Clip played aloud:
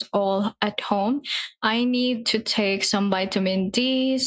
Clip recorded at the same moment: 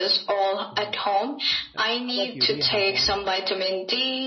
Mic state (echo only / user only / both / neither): both